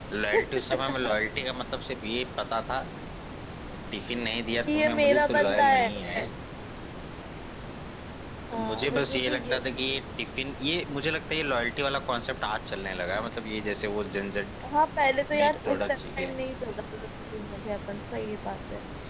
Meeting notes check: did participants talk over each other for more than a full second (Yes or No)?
Yes